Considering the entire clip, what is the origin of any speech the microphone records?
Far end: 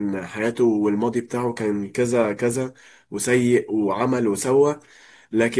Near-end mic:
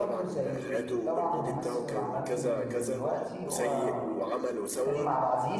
both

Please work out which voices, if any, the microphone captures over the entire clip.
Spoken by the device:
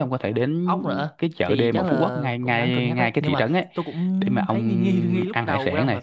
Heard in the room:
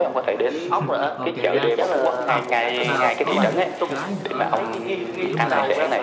both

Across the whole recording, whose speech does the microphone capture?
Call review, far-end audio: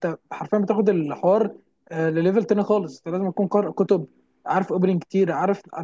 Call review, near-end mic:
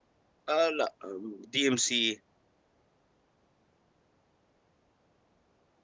user only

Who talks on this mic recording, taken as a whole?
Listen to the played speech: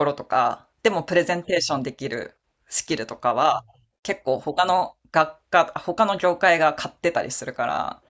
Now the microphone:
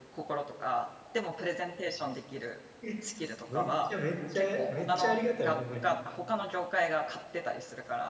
both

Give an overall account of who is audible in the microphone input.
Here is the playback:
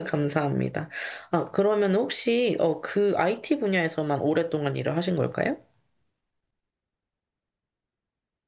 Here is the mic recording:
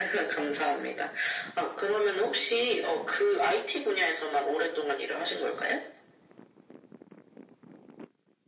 echo only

